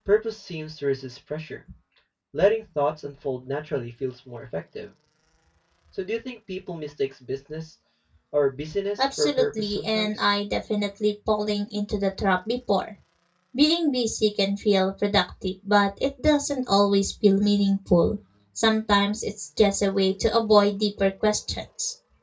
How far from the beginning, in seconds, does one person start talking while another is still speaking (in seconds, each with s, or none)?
9.0 s